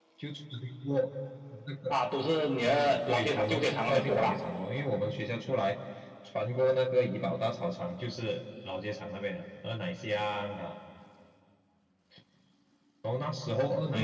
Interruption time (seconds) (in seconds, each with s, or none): 2.6 s